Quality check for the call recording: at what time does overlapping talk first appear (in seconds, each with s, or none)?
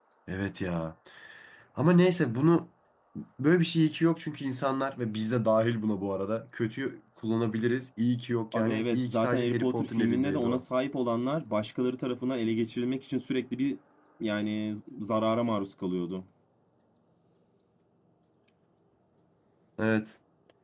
8.5 s